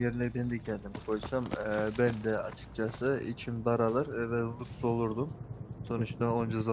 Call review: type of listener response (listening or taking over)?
listening